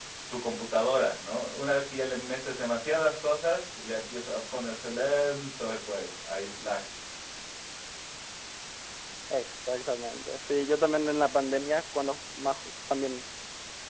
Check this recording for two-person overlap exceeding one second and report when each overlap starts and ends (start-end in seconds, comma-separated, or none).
none